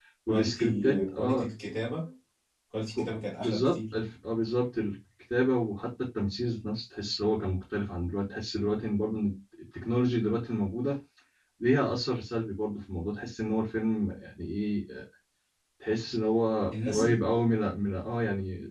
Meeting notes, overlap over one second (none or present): present